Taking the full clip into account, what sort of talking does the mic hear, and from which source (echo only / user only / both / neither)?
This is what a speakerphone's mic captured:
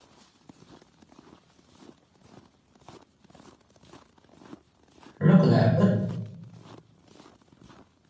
user only